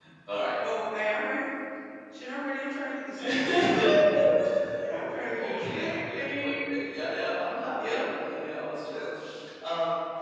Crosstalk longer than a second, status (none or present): present